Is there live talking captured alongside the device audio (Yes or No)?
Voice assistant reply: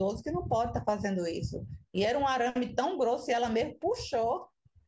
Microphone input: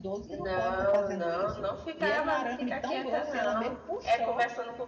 Yes